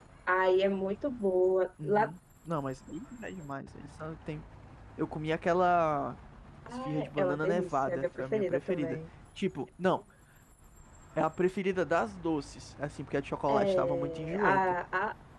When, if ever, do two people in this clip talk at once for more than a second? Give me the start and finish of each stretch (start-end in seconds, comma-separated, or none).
6.8-9.0, 13.5-14.8